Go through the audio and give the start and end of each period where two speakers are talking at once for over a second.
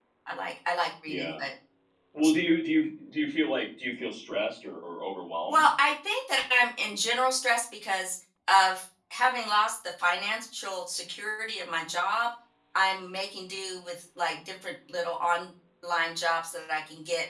none

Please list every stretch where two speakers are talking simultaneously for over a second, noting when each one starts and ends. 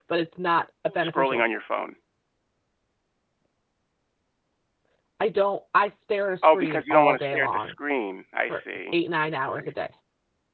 6.4-7.7

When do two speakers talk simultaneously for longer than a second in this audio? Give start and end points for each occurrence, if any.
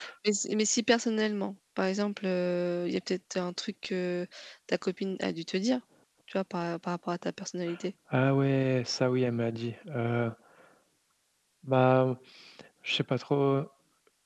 none

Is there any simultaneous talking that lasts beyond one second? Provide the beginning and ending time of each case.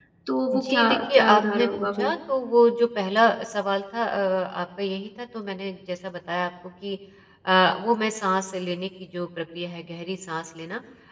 0.5-2.1

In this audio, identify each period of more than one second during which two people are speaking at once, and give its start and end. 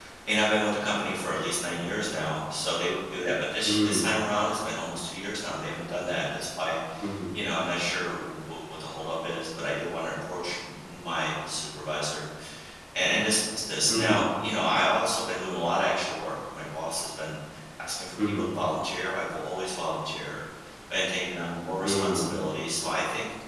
none

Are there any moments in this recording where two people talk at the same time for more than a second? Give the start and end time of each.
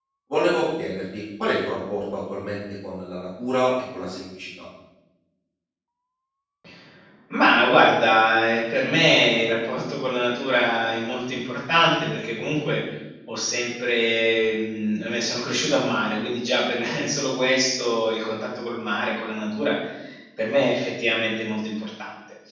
none

